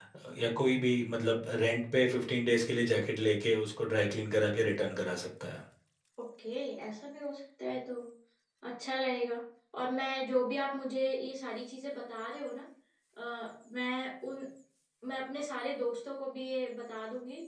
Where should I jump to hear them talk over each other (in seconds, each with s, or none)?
none